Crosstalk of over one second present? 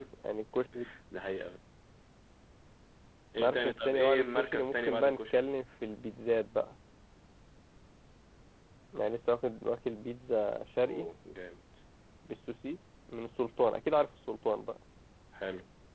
Yes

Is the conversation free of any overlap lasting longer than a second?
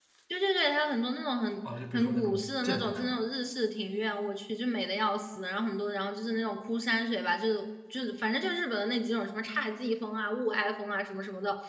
No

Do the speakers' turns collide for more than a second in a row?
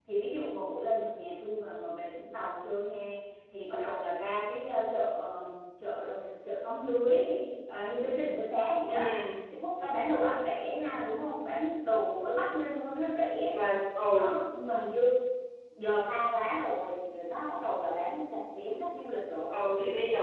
No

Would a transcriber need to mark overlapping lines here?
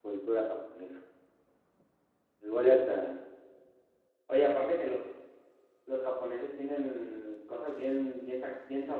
No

